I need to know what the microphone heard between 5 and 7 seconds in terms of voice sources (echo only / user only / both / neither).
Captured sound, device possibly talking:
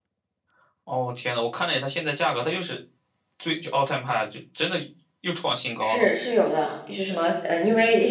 both